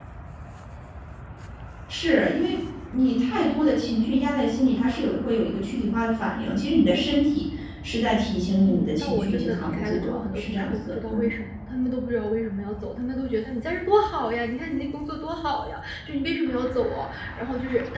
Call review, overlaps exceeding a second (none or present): present